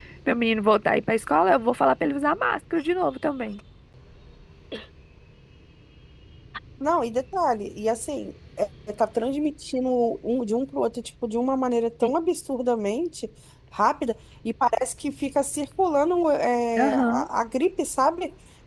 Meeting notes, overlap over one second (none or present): none